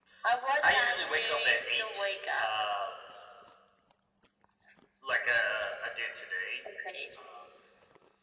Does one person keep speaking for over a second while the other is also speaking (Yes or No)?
Yes